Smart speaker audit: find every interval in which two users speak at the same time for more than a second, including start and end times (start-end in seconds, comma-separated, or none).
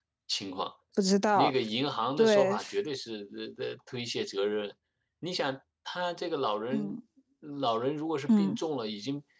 none